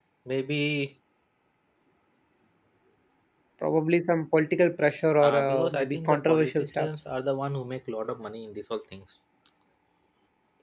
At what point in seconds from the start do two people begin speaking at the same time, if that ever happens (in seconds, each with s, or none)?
5.2 s